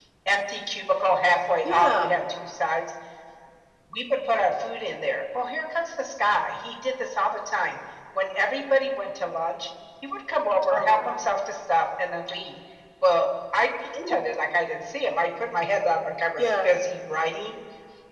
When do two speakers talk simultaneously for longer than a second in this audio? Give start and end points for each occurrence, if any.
none

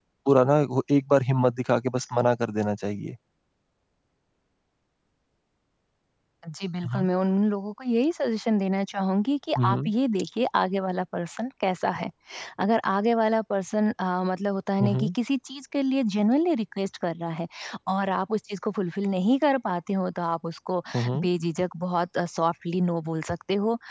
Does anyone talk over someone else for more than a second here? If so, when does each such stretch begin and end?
none

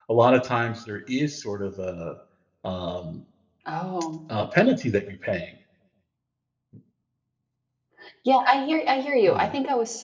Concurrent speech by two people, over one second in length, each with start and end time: none

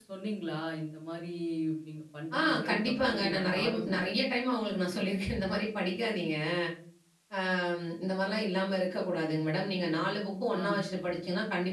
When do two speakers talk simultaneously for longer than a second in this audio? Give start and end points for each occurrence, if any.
2.4-4.0

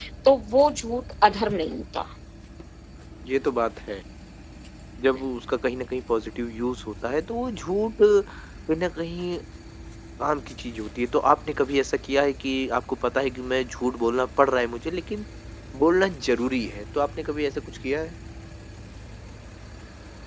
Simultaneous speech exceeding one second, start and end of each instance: none

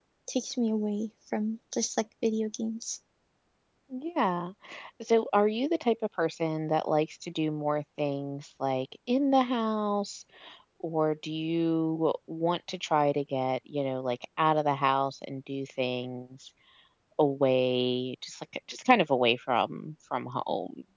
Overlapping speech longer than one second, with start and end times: none

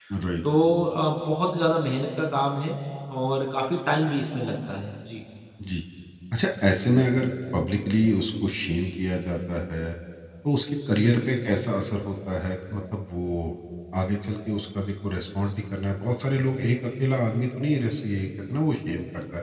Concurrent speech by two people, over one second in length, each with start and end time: none

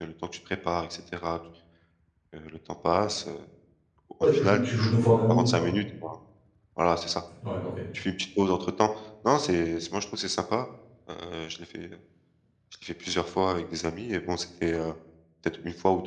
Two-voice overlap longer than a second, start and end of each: 4.3-5.7

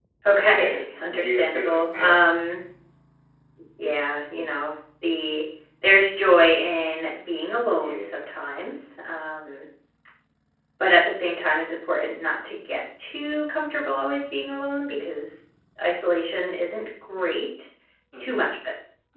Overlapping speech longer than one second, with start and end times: 0.5-2.2

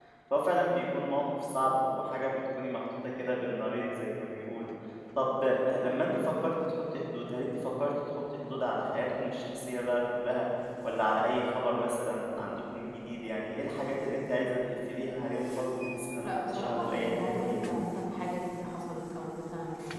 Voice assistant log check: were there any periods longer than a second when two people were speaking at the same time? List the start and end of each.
16.2-17.7

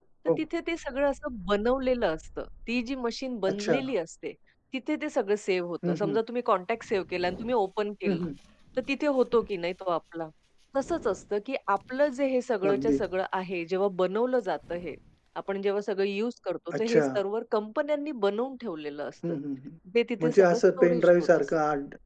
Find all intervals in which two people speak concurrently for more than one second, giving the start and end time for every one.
20.2-21.4

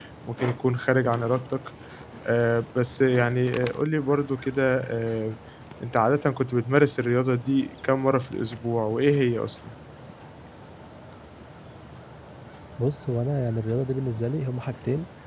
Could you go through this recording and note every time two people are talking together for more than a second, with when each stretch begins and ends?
none

